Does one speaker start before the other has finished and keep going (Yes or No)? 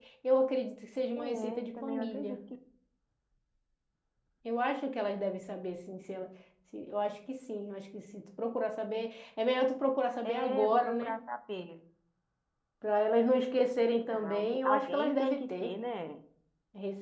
Yes